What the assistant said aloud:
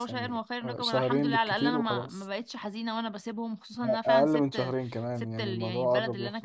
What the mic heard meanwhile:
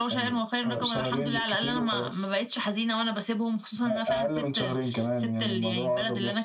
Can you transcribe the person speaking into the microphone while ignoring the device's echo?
none

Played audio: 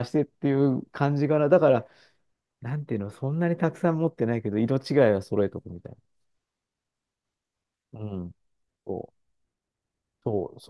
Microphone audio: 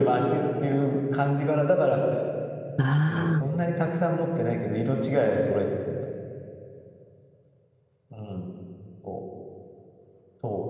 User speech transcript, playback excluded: あ、ああ、

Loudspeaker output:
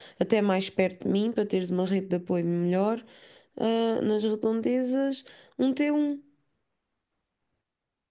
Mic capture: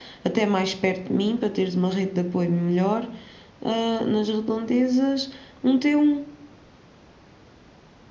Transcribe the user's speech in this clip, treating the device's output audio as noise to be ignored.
none

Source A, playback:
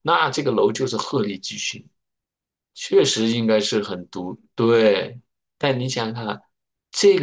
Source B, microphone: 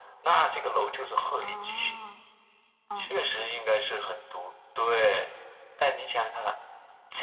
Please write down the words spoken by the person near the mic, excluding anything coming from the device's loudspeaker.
哦嗯

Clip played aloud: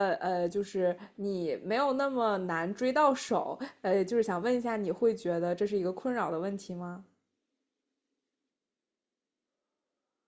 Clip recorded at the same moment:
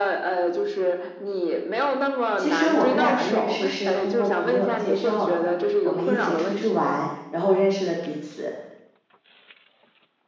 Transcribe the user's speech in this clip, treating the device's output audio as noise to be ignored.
其实我们两个认识是通过朋友介绍的，我们一起出去玩，然后认识了彼此，

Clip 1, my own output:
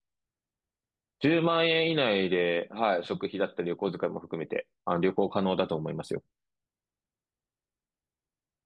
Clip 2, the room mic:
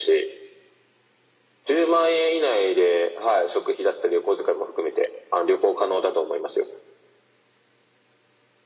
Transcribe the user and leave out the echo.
none

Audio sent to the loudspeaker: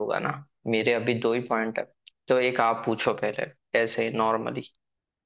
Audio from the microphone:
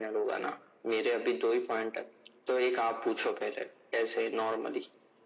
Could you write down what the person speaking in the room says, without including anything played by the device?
none

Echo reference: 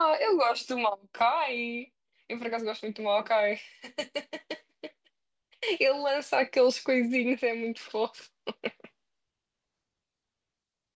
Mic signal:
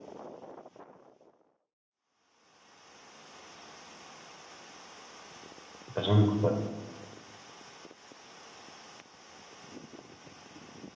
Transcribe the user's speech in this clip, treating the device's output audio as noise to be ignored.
Epá, já não me recordo.

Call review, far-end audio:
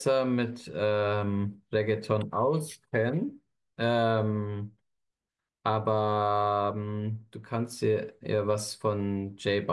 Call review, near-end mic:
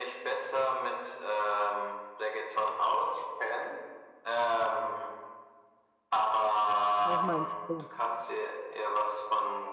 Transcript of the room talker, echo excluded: Was meinst du?

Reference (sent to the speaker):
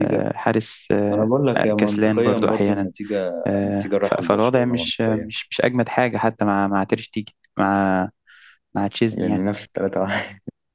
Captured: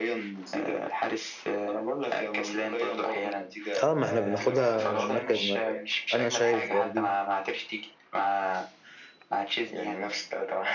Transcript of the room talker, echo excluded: اه ما احنا بناخدها مركز مركز انا شايف برضو

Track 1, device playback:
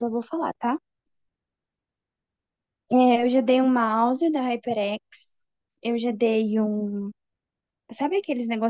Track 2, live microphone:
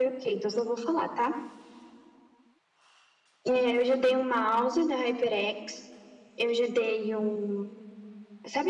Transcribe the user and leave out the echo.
none

